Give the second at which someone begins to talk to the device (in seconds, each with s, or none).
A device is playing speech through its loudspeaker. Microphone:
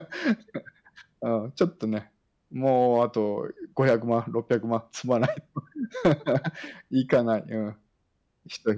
none